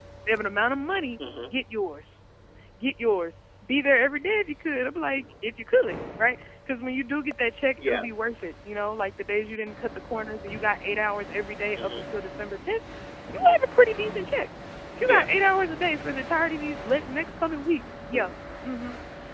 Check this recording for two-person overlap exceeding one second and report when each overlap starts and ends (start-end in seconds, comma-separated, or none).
none